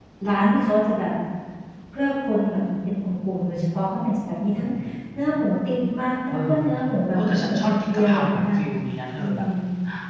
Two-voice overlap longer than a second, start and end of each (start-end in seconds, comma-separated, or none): 7.1-8.6